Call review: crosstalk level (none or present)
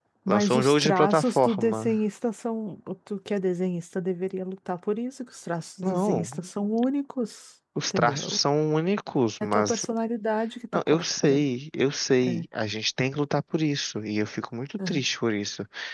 present